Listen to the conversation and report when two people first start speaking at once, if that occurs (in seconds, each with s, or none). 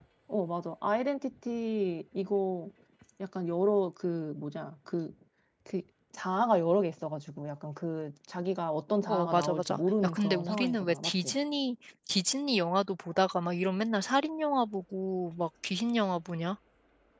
9.1 s